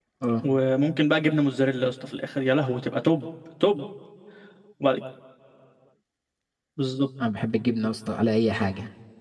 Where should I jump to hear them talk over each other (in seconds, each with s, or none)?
none